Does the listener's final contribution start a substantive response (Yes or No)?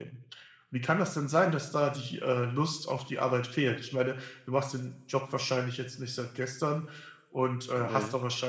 No